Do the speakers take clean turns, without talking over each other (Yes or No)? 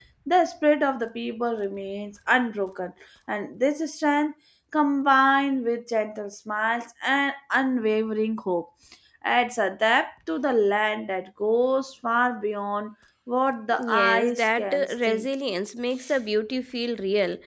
No